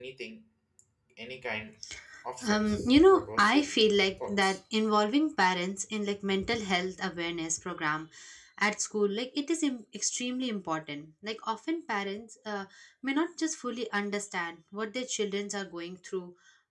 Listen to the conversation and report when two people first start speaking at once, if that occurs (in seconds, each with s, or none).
2.4 s